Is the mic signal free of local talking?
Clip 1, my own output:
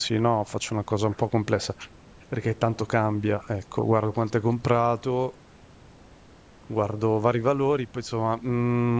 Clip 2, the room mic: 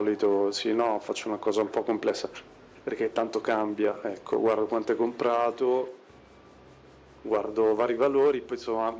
Yes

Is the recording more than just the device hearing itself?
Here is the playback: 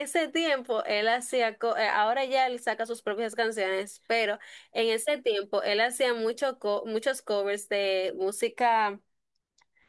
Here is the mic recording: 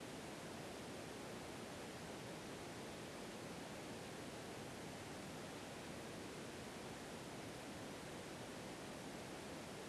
No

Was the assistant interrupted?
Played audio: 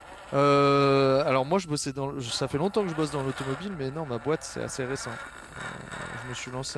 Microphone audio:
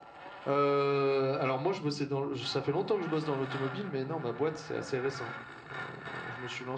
No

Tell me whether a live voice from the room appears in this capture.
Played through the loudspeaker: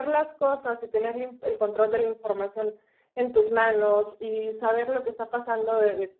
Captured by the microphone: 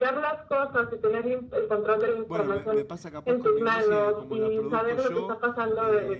Yes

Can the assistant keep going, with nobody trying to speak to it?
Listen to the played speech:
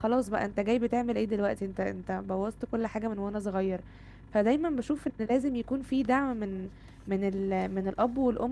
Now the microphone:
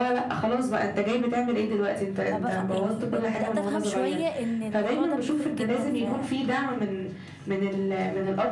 No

